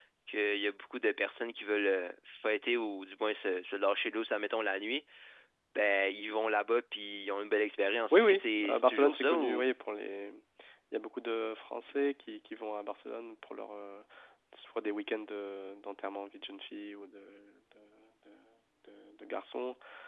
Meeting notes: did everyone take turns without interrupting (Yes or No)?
No